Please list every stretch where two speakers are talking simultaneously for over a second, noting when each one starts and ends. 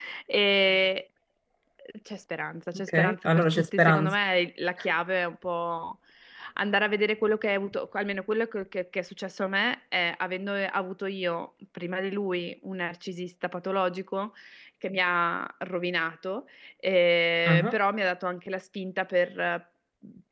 2.8-4.2

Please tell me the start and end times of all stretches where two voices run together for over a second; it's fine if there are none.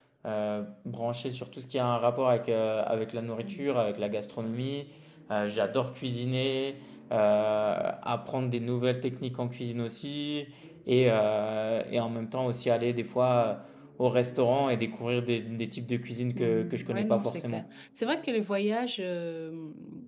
16.4-17.7

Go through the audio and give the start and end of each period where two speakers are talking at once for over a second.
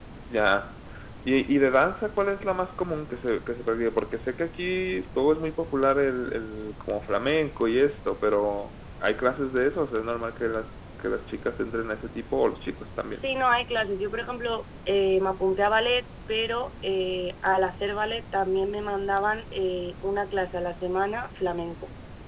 none

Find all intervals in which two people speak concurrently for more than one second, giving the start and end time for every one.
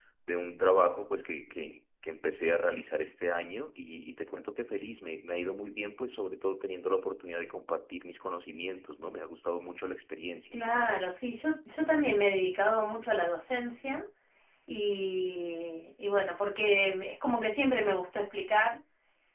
none

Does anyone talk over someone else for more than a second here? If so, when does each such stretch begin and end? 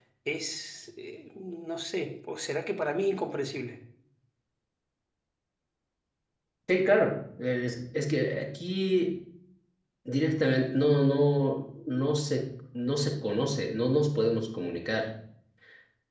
none

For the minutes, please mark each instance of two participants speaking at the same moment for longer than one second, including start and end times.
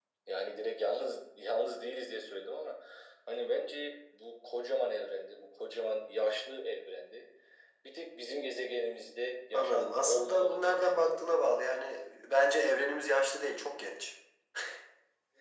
9.5-11.4

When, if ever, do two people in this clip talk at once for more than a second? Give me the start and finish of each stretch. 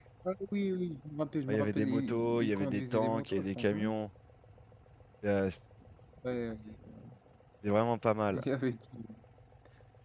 1.5-3.9

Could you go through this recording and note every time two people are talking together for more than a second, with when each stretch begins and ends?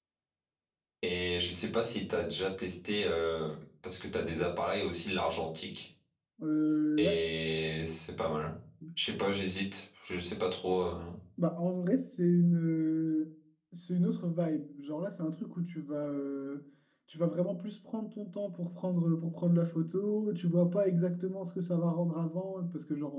none

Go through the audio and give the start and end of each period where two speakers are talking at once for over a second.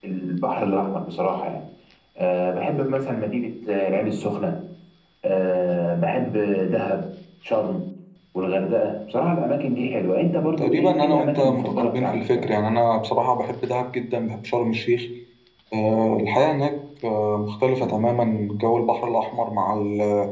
10.6-12.4

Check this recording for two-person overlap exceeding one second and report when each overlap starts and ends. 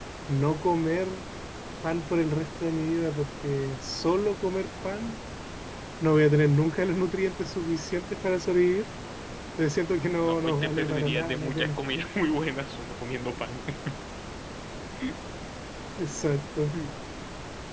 10.2-11.8

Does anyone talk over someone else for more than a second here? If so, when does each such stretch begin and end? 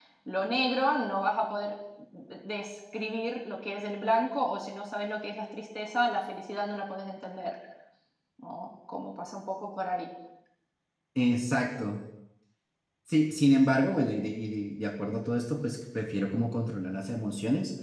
none

